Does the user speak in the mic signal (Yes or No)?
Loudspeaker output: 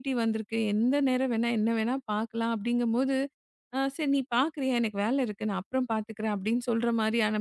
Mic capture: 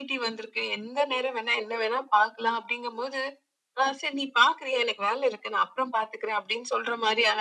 No